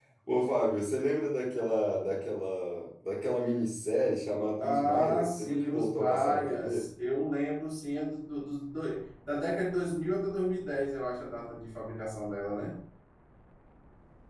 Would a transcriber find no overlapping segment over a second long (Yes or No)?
No